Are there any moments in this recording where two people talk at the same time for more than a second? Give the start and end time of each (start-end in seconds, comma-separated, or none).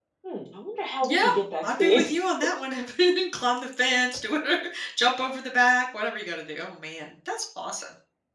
none